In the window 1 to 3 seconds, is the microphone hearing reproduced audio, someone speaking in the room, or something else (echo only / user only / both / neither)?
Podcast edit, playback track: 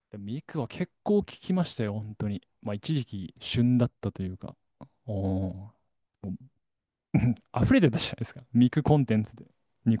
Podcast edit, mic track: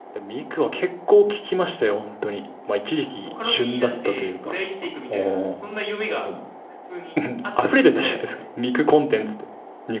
echo only